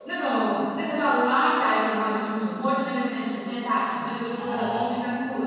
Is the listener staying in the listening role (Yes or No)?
Yes